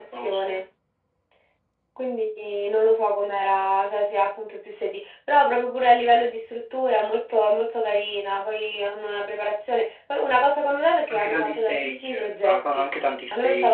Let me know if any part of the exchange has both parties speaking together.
Yes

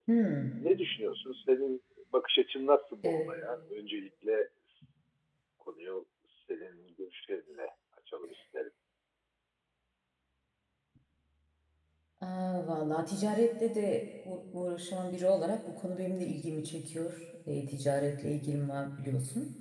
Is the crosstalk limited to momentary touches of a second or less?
Yes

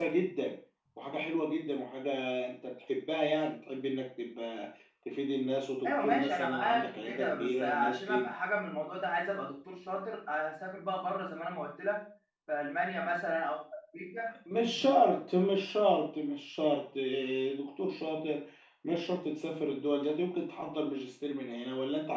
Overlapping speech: Yes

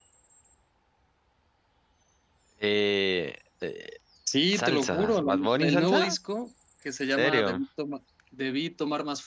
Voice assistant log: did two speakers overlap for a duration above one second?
Yes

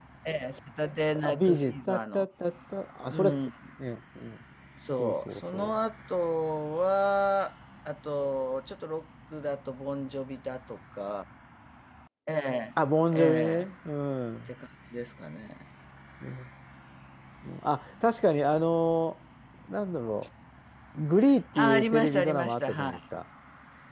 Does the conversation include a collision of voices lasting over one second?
Yes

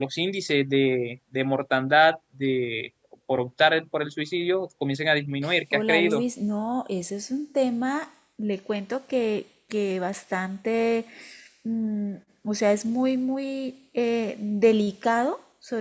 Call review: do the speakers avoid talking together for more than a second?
Yes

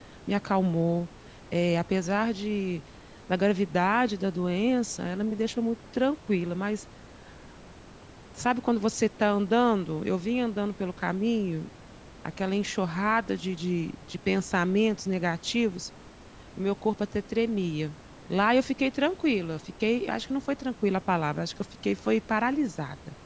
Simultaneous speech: No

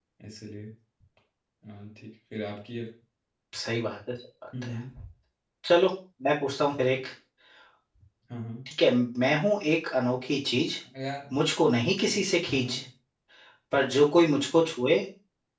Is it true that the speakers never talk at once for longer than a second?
Yes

